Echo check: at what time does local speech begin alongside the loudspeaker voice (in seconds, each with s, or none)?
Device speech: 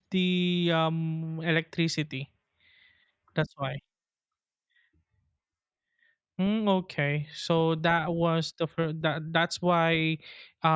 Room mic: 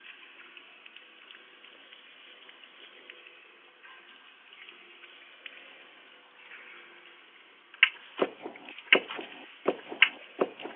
none